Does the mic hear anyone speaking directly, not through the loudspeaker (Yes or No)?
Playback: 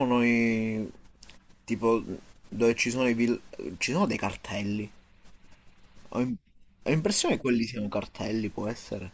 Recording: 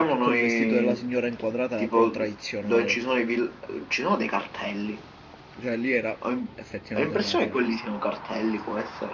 Yes